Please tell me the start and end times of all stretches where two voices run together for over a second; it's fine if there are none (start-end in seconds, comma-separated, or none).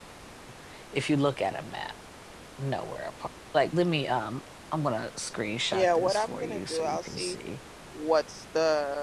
5.7-7.4